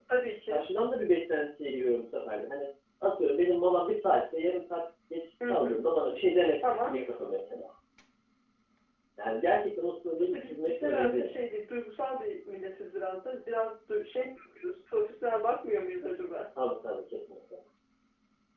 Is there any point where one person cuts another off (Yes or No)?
Yes